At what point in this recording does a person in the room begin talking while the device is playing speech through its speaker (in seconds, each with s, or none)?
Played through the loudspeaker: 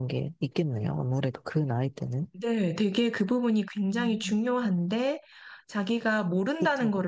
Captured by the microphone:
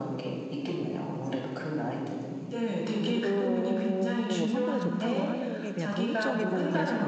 3.0 s